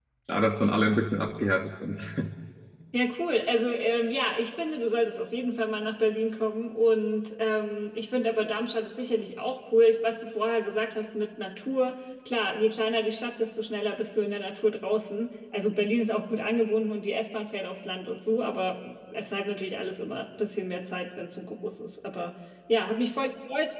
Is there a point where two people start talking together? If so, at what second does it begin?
none

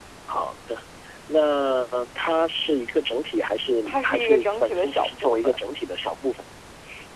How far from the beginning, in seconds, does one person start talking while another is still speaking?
3.8 s

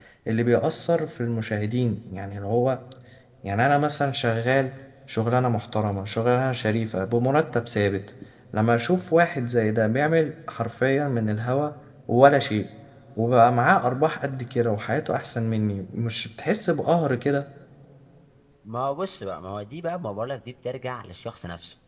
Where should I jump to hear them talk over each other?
none

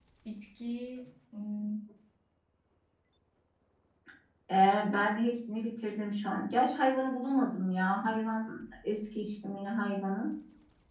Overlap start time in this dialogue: none

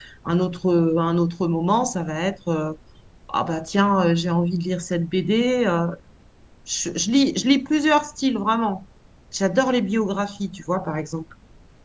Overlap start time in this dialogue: none

